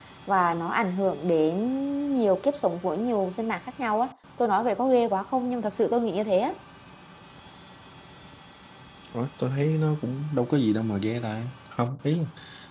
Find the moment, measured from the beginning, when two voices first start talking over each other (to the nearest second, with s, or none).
none